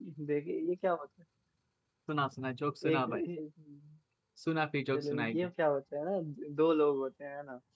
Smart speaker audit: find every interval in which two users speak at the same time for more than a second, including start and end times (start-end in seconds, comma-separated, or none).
none